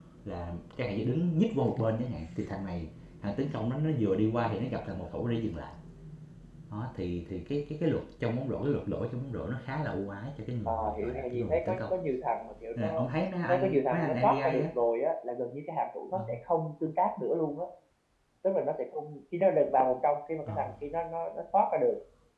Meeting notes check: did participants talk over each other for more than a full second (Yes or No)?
Yes